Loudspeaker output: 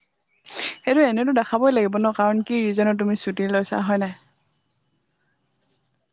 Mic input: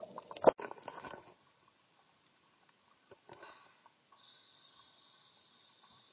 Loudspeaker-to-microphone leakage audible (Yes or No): No